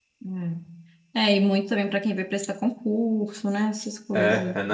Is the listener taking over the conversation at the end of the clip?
Yes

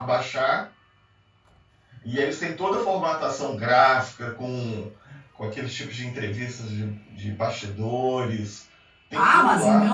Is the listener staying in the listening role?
No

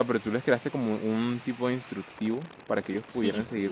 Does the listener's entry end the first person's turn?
Yes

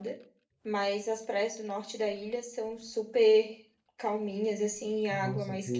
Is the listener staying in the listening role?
No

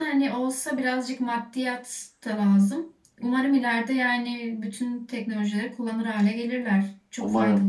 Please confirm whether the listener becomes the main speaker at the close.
Yes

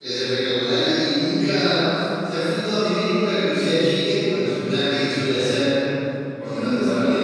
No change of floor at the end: Yes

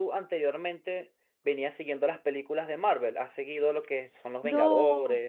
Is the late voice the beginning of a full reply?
Yes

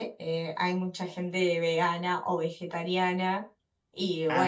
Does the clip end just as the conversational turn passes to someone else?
No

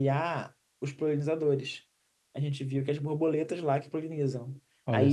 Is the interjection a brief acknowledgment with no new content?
Yes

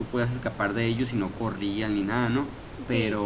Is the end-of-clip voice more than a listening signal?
No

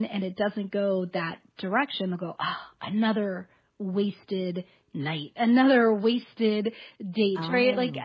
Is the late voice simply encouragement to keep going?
Yes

